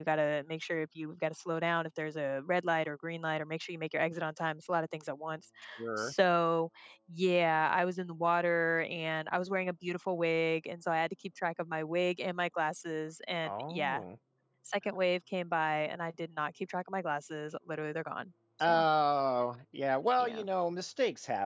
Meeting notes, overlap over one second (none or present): none